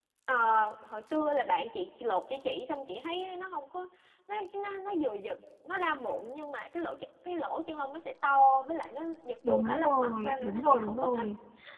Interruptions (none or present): present